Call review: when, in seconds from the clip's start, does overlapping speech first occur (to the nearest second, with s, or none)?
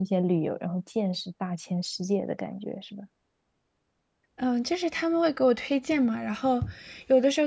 none